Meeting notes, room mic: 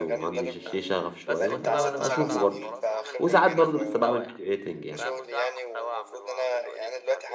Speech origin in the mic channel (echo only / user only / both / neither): both